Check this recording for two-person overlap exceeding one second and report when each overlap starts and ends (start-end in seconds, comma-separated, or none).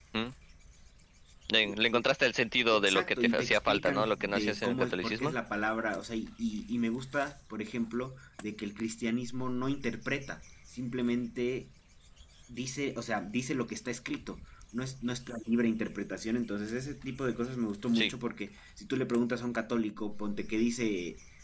2.8-5.3